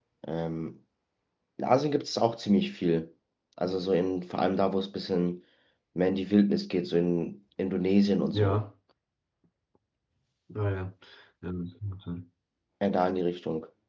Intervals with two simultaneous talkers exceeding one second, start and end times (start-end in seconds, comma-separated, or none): none